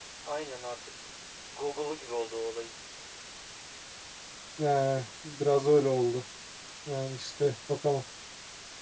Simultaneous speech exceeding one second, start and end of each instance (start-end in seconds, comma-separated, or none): none